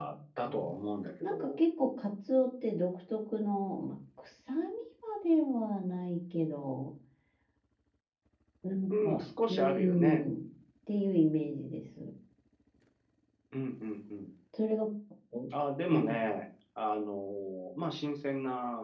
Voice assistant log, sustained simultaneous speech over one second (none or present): present